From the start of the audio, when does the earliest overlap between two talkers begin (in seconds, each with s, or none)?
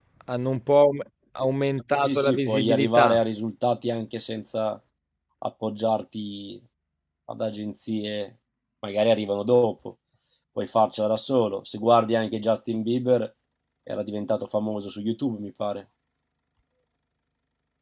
1.9 s